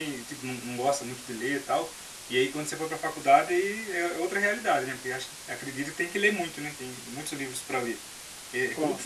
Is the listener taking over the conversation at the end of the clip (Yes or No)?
No